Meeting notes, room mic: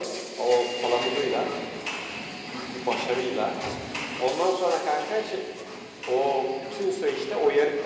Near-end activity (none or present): none